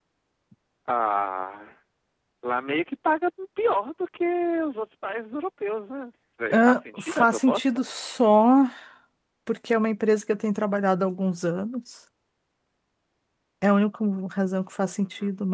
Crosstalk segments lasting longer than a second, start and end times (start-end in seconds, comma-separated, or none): 6.5-7.8